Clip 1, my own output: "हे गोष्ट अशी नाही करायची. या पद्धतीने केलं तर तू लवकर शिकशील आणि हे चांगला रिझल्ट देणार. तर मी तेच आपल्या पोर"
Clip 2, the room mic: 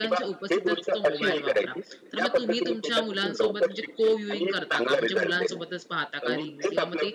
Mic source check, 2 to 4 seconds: both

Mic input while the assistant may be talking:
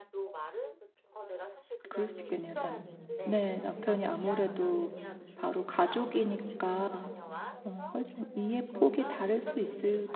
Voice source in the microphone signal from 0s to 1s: echo only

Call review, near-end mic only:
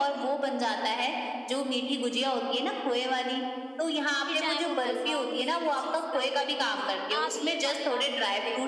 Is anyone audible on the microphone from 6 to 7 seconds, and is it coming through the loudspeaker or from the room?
both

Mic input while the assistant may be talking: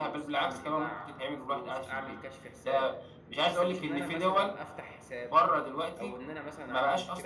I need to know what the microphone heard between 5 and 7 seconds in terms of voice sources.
both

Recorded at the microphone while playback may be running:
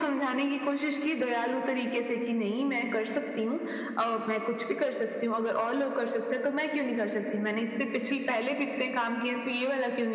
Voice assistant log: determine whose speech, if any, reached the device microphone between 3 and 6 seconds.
echo only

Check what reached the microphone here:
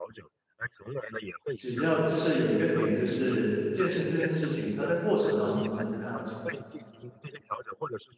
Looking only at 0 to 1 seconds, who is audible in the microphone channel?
echo only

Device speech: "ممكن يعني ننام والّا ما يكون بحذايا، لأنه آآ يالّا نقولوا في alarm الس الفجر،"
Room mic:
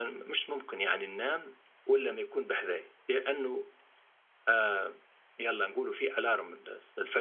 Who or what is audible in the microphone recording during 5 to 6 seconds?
echo only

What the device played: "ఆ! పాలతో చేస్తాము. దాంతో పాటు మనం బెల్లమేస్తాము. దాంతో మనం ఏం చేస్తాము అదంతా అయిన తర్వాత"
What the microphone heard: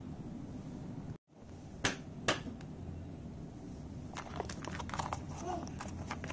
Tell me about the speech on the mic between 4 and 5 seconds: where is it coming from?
neither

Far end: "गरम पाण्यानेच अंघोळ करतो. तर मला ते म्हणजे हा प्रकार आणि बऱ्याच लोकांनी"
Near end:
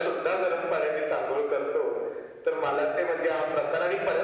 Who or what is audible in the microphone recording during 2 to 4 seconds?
echo only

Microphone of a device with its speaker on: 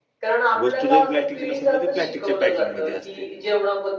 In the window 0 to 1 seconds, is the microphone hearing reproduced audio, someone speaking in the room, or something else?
both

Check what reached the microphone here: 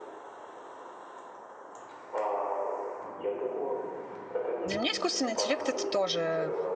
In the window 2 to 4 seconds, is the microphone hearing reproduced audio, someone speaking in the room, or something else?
echo only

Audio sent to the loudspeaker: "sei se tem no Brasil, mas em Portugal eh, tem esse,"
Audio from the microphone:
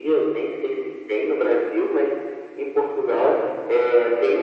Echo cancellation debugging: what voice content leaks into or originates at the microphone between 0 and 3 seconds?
echo only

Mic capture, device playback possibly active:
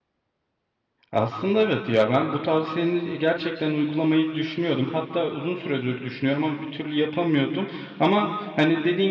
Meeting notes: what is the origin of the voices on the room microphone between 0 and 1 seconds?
neither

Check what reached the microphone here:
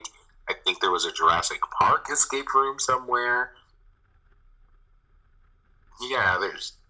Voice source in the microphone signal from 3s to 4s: echo only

